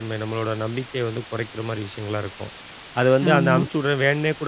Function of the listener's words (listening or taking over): listening